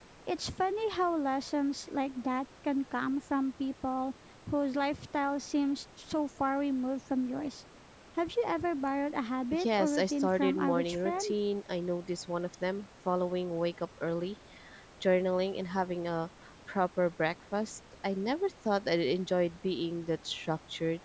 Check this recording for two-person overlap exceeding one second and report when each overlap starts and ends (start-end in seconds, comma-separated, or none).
9.6-11.3